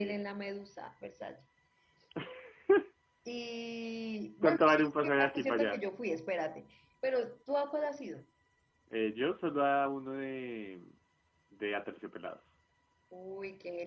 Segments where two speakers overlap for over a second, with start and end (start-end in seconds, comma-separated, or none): 4.4-5.8